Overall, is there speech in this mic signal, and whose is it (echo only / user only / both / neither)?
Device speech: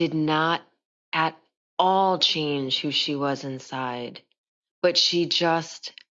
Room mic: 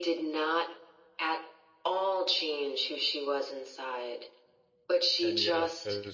both